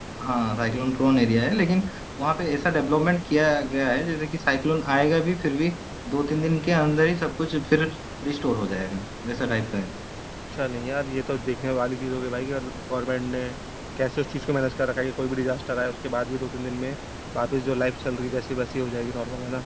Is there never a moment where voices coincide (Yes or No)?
Yes